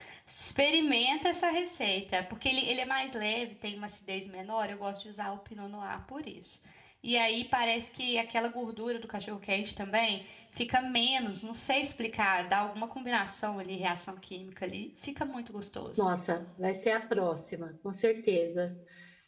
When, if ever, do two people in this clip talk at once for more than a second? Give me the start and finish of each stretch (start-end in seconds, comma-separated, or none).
none